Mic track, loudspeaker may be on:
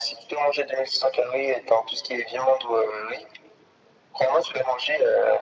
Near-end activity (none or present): none